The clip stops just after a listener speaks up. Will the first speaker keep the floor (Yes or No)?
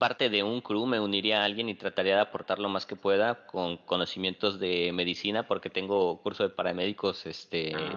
Yes